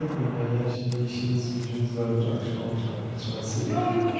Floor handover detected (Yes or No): Yes